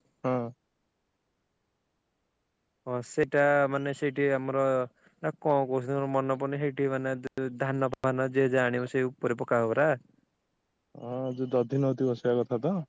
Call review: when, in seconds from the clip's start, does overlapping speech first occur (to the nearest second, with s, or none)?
none